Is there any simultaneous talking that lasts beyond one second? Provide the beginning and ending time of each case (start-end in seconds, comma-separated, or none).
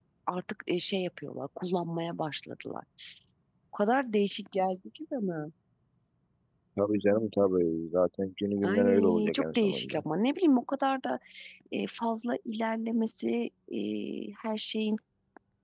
8.6-10.0